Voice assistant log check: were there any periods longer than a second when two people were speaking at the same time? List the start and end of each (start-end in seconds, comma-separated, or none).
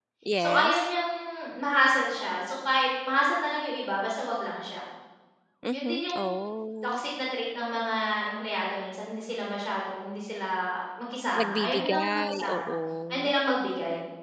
11.4-12.7